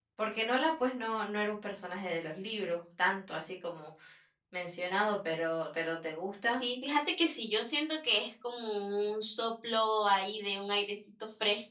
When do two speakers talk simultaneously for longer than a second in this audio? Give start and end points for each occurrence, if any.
none

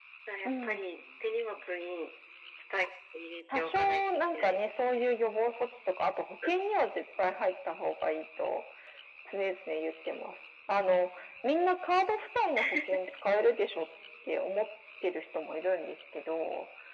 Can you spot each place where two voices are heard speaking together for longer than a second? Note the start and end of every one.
3.5-5.1

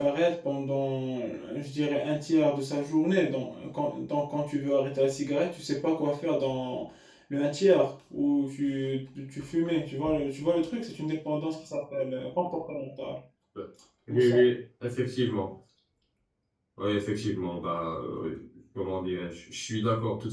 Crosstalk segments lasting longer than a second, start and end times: none

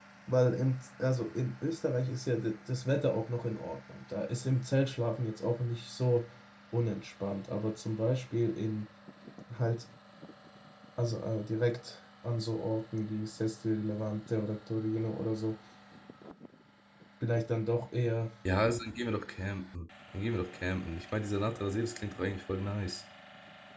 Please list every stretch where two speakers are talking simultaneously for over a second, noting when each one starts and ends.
none

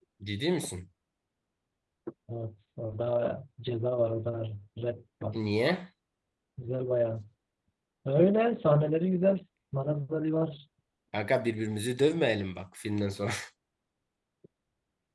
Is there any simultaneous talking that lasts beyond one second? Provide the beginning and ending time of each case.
none

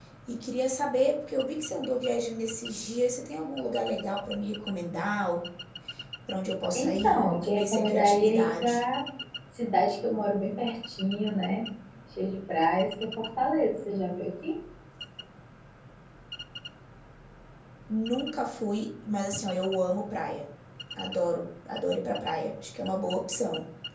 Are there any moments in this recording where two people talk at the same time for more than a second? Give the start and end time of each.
6.7-8.8

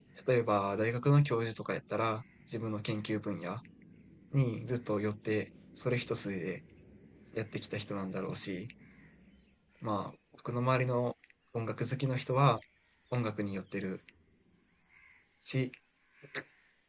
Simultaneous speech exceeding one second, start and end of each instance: none

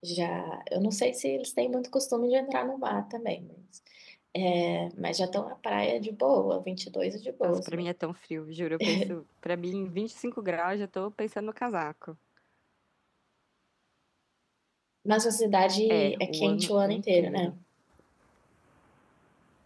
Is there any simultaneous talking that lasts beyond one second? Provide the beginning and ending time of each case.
15.9-17.5

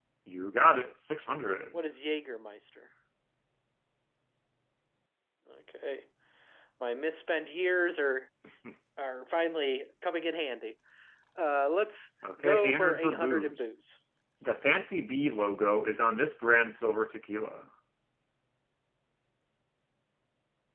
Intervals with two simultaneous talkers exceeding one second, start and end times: 12.4-13.6

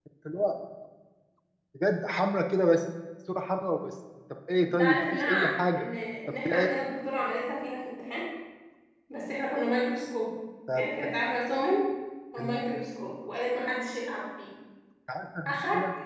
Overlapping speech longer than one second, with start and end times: 4.6-5.8

